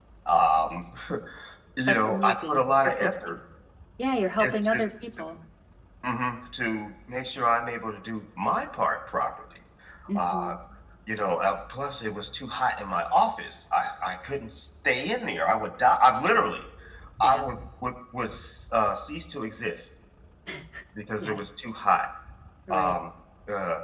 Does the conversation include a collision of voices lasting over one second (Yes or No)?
Yes